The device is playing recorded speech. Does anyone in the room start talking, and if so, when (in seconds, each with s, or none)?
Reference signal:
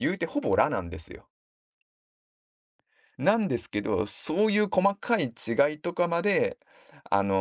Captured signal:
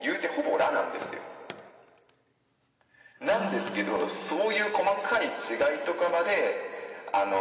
3.3 s